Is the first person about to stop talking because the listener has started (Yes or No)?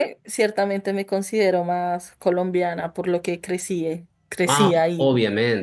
Yes